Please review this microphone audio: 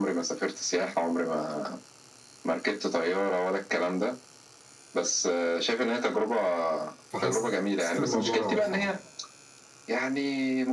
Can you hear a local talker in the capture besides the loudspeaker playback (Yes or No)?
Yes